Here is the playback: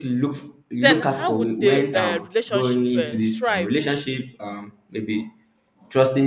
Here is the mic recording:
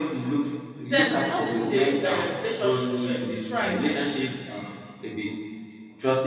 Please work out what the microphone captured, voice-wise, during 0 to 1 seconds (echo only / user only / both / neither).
echo only